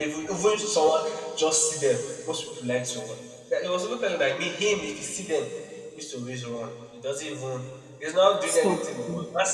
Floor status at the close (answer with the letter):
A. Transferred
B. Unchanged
B